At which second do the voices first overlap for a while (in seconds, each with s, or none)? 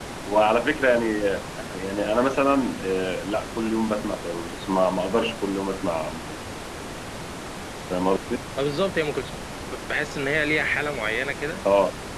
none